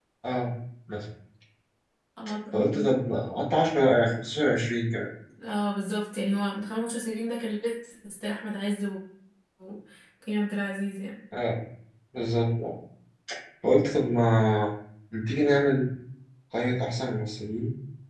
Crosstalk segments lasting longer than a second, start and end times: none

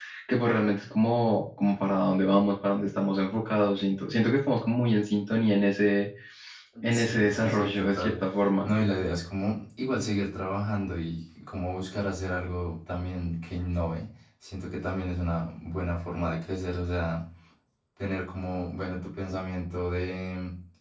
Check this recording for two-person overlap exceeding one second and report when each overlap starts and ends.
6.9-8.2

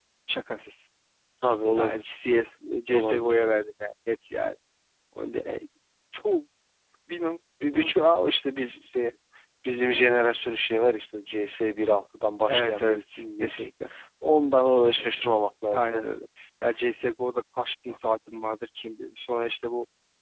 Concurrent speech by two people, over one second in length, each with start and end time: 12.5-13.7

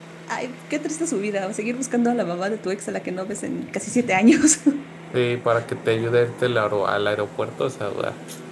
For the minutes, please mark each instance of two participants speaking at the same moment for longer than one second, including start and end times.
none

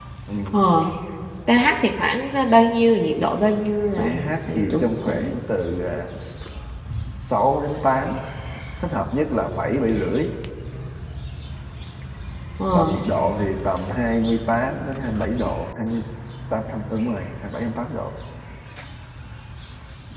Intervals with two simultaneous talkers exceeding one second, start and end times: 4.0-5.3

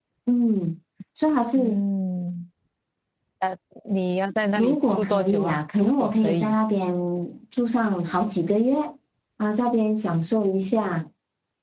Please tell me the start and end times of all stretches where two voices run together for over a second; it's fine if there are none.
4.6-6.6

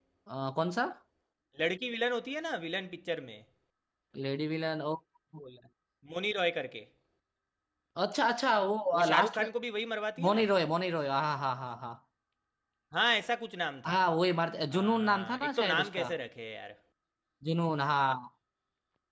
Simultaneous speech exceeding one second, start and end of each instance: 14.7-16.1

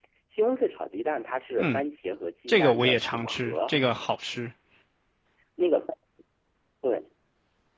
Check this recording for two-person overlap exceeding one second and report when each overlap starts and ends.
2.5-3.8

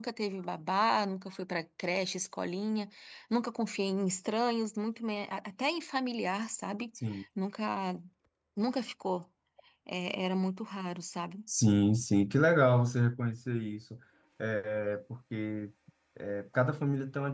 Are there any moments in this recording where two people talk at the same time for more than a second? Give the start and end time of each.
none

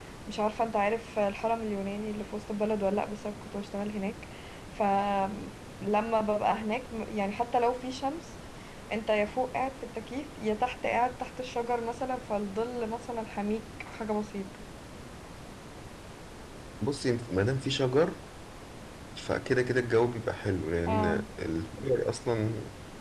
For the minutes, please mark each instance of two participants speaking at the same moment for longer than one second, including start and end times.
none

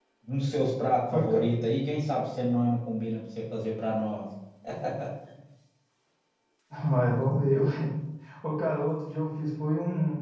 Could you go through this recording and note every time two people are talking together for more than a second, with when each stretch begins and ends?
none

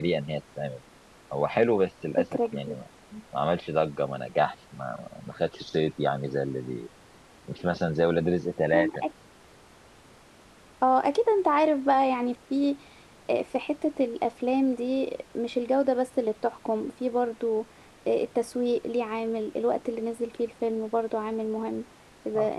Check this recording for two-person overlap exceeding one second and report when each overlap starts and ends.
none

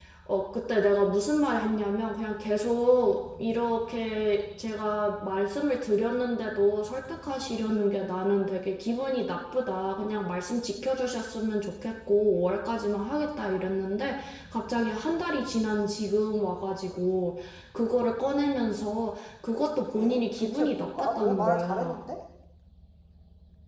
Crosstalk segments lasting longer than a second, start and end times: 19.9-22.0

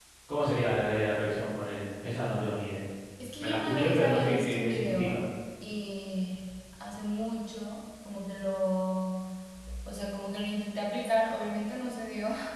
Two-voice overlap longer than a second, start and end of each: 3.4-5.2

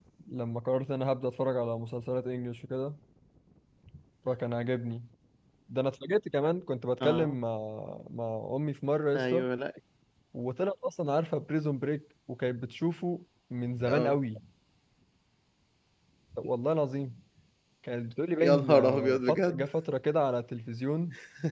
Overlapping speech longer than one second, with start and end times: 18.4-19.7

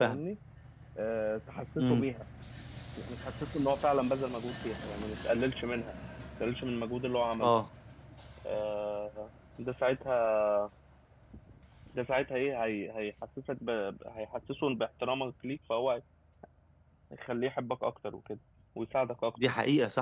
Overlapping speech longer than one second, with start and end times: none

